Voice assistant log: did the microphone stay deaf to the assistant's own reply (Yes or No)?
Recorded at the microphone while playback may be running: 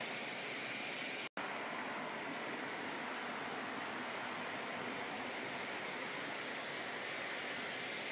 Yes